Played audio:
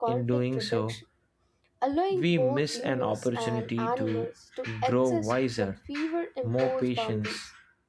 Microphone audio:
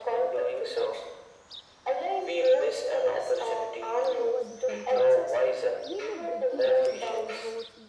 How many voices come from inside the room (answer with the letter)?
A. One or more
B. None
A